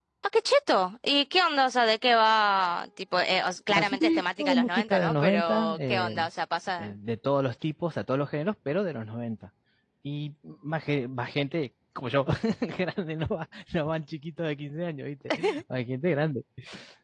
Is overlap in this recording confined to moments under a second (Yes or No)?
No